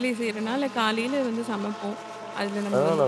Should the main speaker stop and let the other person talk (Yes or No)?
Yes